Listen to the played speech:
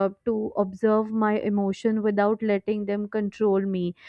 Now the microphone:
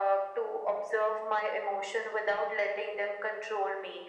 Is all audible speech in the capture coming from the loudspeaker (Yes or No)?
Yes